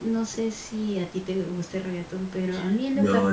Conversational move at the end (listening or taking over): taking over